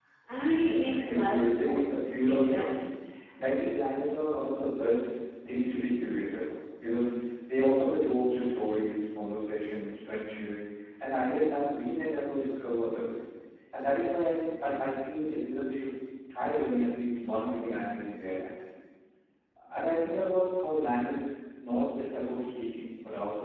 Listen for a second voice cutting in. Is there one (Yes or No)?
Yes